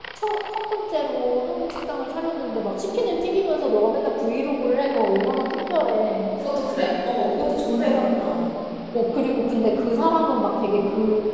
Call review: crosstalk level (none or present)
none